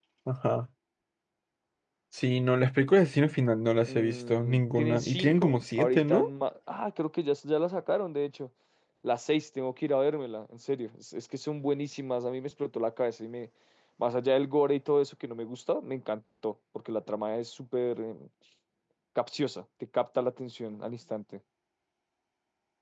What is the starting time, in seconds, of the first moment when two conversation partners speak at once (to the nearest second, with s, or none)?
4 s